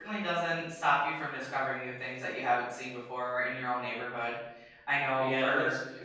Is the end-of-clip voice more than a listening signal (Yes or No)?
Yes